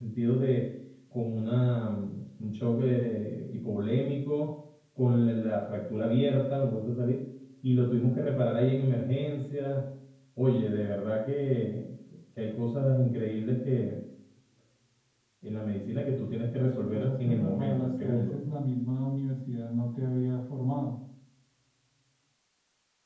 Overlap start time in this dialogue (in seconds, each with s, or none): 16.6 s